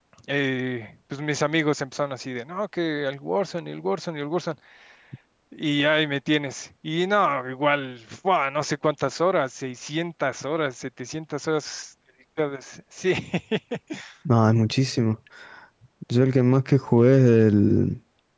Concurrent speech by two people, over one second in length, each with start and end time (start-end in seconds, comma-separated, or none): none